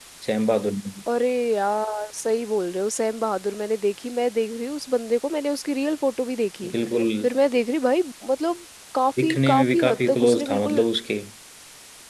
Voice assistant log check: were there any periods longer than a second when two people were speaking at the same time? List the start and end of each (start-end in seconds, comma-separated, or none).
9.2-10.8